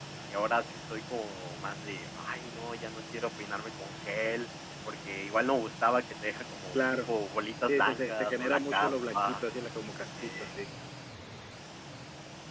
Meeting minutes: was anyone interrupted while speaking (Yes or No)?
Yes